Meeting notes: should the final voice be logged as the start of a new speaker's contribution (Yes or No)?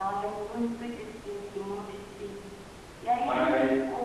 Yes